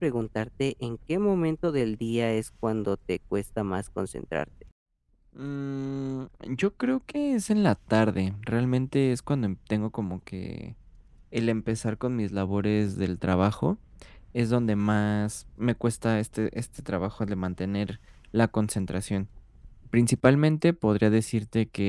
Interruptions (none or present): none